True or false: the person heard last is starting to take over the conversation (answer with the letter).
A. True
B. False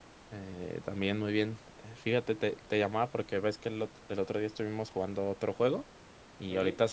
B